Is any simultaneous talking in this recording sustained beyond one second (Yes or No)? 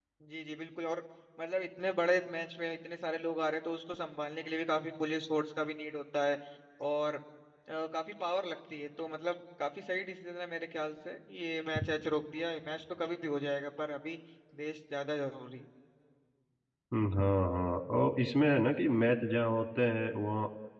No